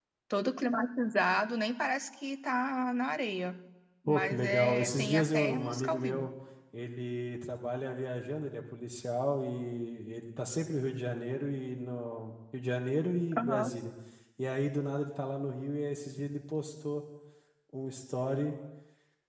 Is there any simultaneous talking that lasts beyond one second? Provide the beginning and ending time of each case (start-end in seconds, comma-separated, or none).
4.1-6.3